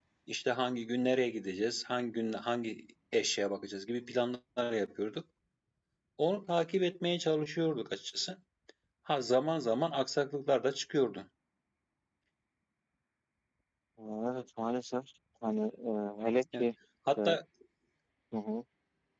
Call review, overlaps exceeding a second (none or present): none